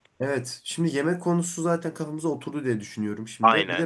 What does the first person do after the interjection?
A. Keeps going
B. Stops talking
A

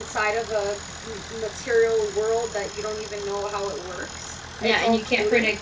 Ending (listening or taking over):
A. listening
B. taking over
B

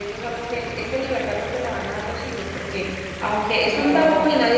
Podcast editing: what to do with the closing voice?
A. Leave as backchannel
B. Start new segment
A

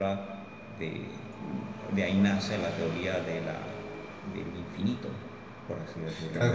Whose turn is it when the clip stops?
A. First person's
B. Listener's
B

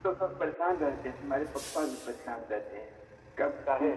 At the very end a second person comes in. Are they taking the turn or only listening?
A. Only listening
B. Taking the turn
A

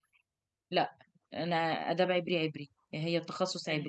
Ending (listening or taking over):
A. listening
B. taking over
B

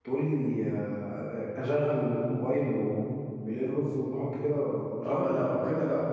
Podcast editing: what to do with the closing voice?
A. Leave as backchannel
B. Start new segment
B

